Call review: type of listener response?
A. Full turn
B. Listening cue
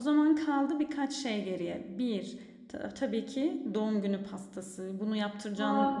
B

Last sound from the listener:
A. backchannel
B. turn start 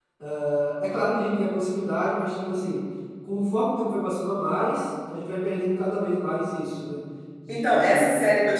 B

